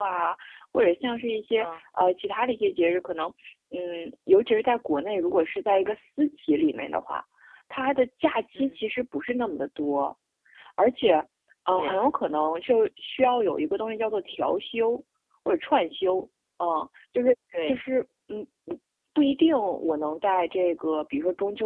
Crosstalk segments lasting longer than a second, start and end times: none

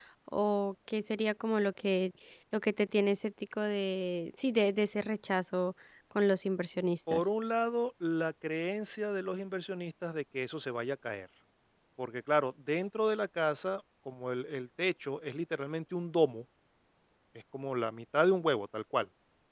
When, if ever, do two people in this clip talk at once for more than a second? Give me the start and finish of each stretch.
none

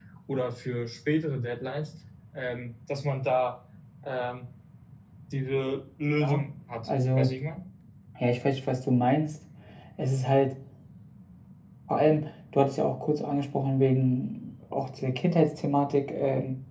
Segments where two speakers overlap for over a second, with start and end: none

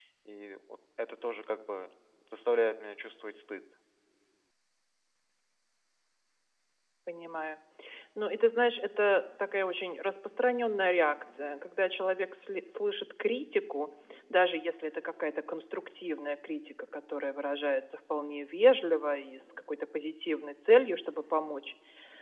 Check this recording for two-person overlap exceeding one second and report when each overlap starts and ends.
none

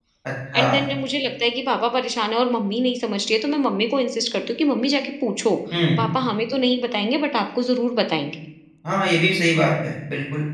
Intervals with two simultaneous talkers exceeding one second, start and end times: none

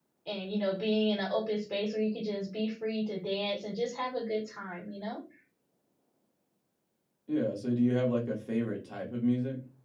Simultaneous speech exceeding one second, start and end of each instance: none

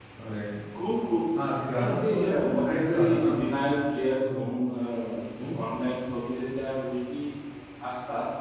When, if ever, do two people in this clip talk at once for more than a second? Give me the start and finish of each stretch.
1.7-3.6

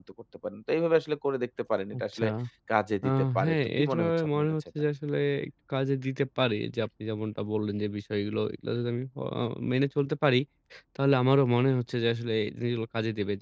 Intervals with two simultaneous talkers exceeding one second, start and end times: 3.0-4.5

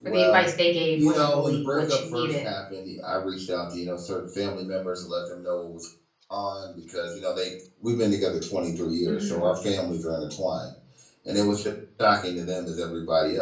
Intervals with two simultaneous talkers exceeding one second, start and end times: 1.0-2.5

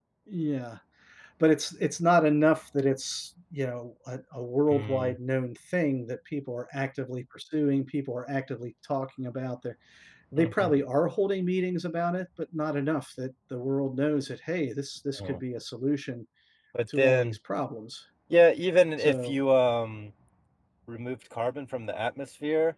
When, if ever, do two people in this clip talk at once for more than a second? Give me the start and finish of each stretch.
none

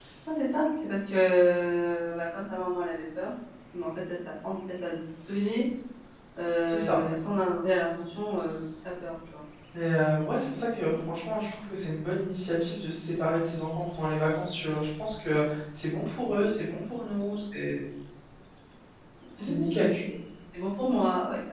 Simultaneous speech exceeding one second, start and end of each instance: none

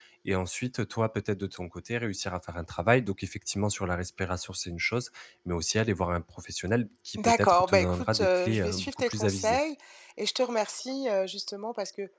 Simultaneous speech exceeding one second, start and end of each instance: 7.2-9.6

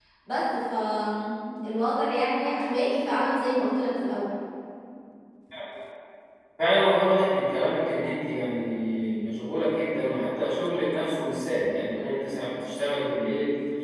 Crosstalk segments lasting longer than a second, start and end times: none

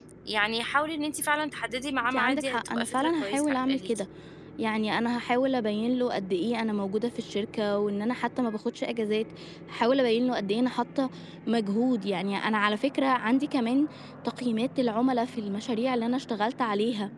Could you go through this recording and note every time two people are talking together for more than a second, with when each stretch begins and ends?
2.1-4.0

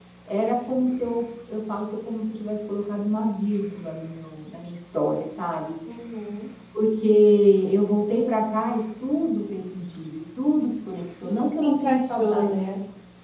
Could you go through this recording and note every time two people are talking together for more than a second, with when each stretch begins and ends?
11.2-12.5

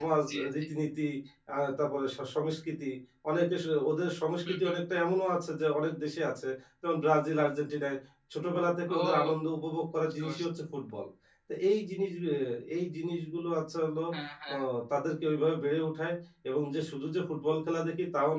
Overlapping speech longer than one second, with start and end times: none

